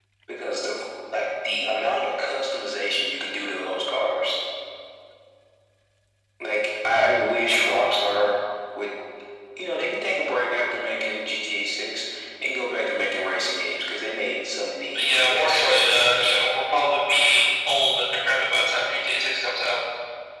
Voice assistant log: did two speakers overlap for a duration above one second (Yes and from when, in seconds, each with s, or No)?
Yes, from 14.9 s